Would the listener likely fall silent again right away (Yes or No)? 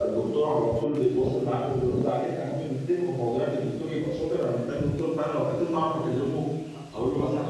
No